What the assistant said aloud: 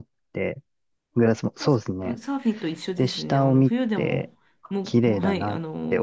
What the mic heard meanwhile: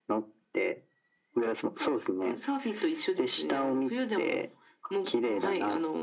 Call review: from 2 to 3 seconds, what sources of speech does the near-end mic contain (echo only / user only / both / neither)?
echo only